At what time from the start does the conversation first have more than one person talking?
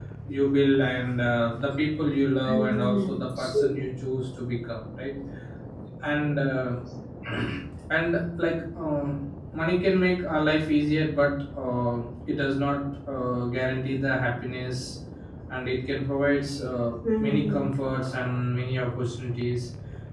2 s

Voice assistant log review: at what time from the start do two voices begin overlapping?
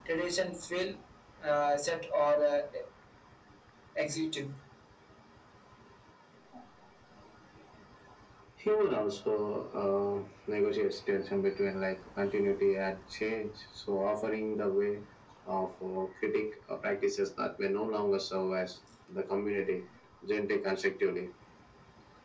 none

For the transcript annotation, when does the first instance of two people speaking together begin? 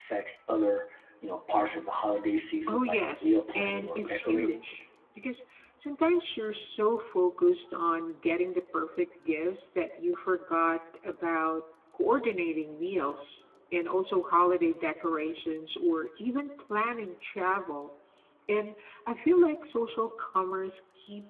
3 s

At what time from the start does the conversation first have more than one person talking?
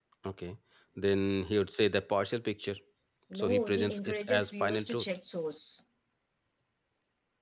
3 s

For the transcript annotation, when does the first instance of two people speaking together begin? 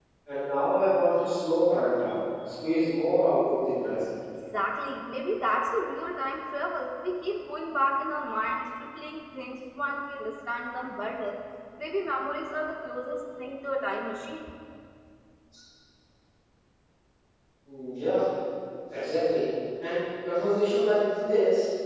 none

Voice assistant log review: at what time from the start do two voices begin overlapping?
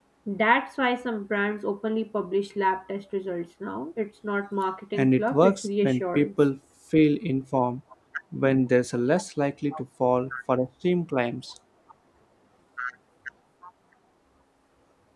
5 s

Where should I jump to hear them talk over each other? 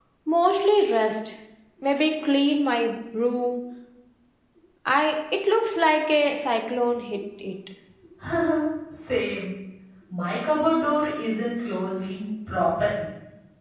none

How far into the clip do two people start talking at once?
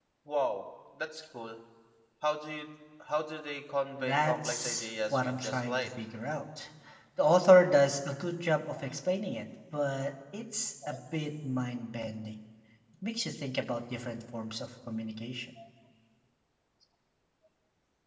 4 s

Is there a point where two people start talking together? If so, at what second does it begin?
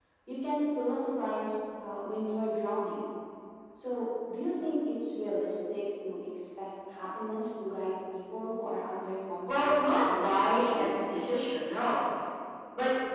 9 s

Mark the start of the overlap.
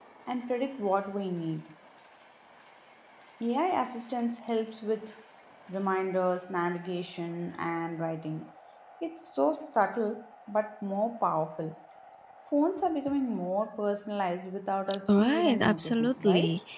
15 s

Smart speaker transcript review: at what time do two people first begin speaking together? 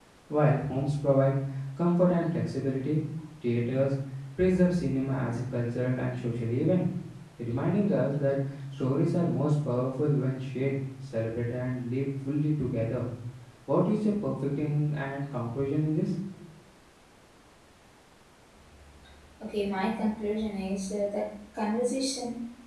none

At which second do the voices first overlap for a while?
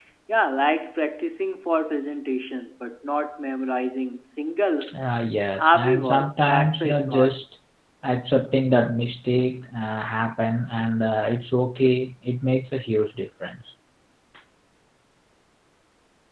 6 s

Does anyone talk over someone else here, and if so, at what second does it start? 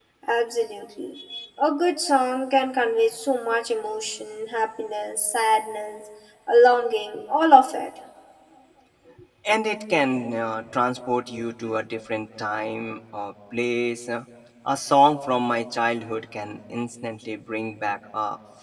none

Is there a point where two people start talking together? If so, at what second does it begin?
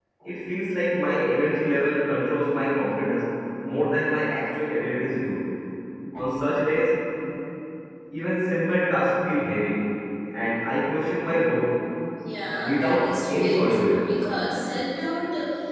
13 s

